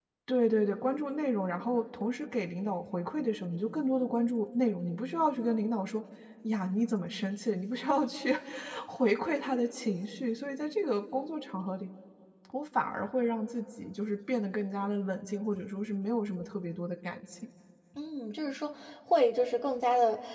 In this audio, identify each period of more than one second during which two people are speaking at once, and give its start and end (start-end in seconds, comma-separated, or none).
none